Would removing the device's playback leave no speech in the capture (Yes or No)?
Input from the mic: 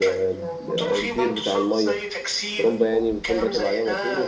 No